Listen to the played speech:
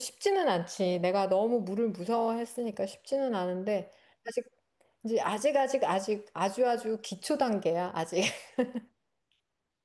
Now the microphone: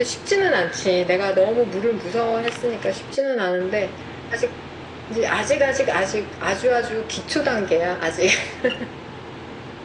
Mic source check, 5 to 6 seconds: echo only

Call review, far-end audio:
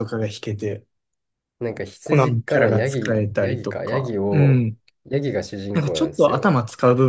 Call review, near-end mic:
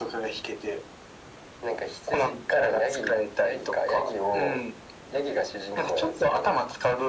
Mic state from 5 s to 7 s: echo only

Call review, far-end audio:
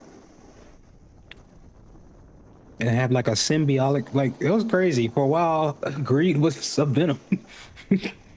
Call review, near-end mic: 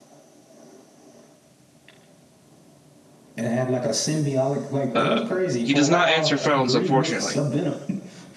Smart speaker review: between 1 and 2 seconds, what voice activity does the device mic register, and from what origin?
neither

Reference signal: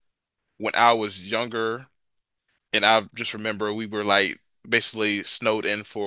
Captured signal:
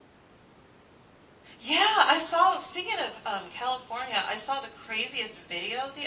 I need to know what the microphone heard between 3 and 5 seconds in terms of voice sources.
user only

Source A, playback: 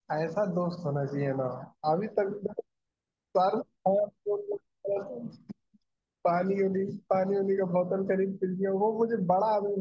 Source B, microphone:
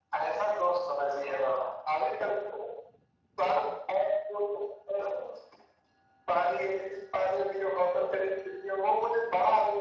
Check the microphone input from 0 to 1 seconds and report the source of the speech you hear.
echo only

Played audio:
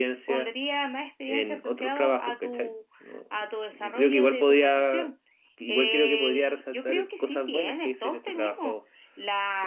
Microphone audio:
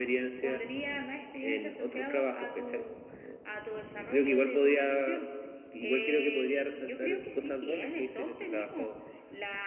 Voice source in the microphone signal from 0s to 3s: echo only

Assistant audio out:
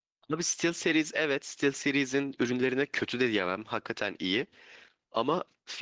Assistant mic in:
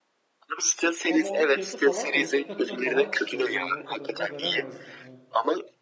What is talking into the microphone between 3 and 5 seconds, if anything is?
both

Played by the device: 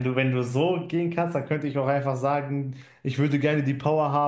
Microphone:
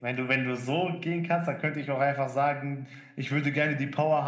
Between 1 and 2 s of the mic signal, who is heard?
echo only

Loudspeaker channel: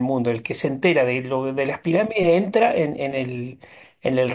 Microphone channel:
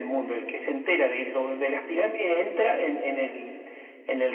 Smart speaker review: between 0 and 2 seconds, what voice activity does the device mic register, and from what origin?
echo only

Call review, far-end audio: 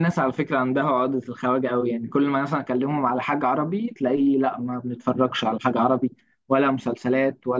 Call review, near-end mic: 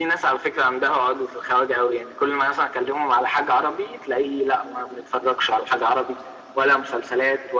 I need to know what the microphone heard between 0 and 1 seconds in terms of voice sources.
echo only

